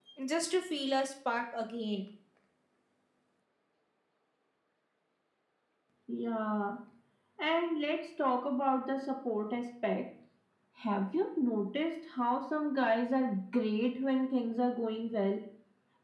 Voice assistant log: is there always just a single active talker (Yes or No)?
Yes